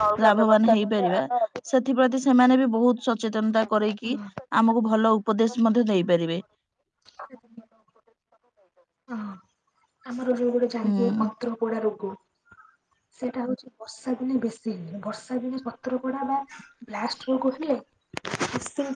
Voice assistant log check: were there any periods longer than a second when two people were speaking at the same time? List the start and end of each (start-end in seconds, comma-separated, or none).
none